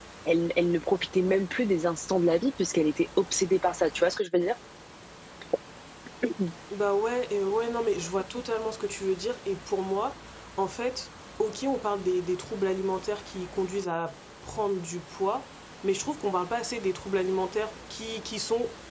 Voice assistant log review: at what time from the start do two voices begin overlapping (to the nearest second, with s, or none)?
none